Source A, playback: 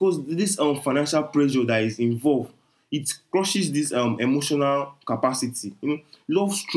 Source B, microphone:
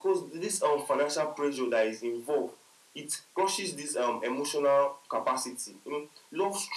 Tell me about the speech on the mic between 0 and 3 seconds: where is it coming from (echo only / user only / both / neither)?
echo only